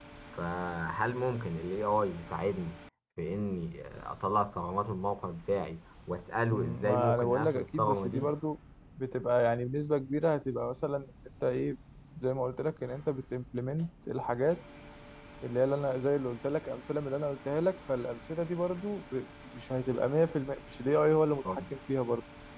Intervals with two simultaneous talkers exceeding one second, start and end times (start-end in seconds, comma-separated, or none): 6.5-8.3